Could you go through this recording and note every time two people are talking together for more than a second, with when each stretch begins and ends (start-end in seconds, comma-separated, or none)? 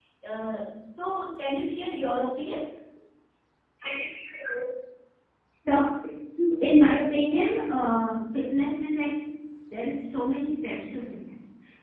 none